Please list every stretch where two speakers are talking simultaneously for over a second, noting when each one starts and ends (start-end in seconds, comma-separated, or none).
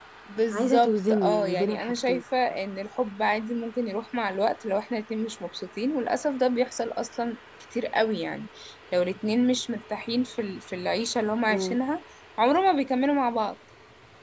0.5-2.2